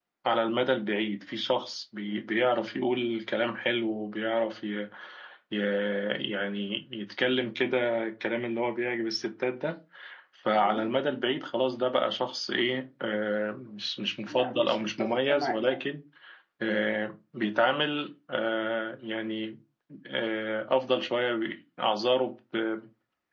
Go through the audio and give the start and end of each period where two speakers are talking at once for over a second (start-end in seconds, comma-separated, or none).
14.3-15.8